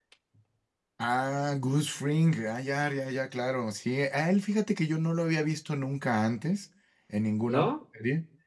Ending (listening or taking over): listening